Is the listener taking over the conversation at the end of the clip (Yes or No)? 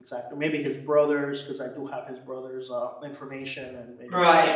Yes